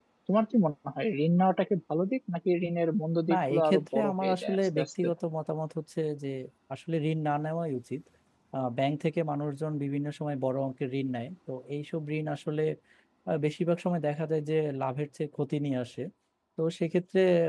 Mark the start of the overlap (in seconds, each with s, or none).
3.3 s